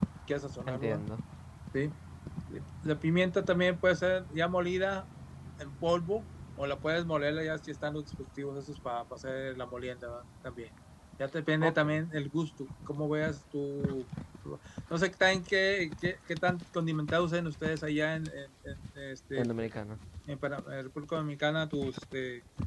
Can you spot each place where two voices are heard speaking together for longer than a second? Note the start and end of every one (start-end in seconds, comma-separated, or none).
none